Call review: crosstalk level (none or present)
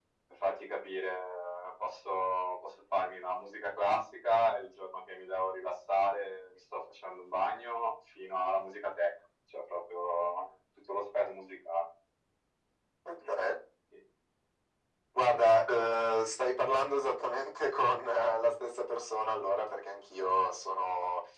none